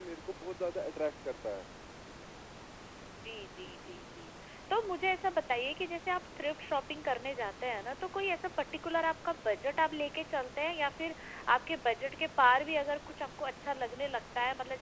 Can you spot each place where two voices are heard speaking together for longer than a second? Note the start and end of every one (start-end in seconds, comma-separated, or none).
none